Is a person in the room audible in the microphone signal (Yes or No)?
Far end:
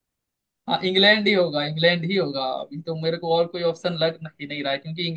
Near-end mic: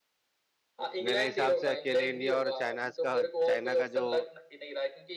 Yes